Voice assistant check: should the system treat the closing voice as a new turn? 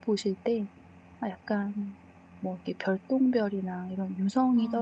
No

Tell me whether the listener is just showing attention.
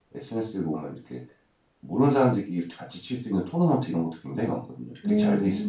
No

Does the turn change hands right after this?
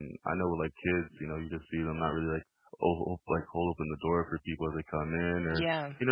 No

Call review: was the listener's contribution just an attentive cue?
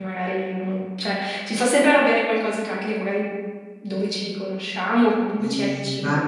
No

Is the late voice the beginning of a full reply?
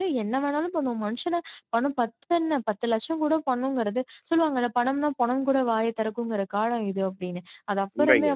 No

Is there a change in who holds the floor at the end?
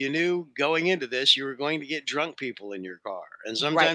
Yes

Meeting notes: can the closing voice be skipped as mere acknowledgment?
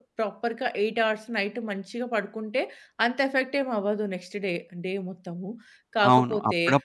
No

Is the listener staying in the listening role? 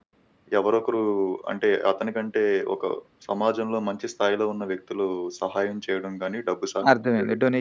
No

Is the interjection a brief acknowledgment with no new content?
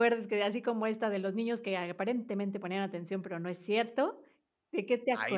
No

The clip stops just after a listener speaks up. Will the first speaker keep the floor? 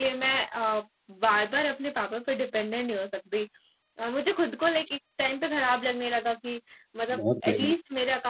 Yes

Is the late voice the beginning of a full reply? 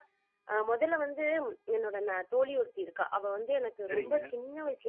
No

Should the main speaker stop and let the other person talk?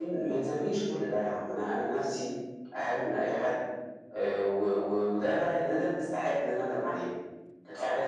No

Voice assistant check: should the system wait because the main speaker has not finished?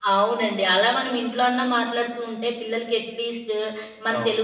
Yes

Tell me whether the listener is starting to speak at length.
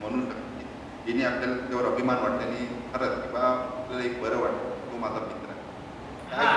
Yes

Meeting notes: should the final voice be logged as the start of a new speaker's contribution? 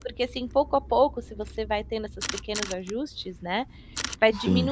No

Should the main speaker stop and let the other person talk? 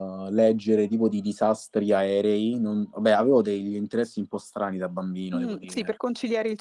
Yes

